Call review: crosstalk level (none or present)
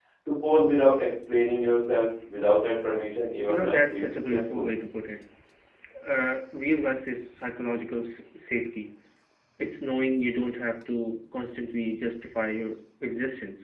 present